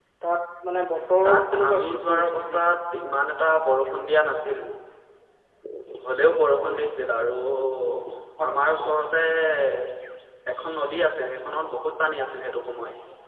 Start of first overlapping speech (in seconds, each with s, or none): 1.2 s